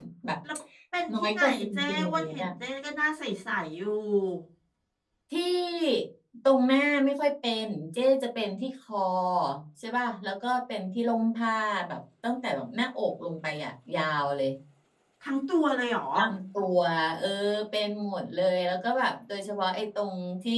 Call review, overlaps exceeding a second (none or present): present